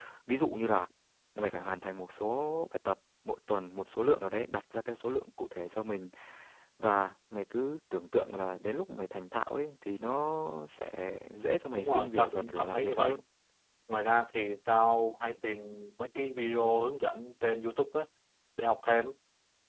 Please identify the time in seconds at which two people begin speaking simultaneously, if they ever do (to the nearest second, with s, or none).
12 s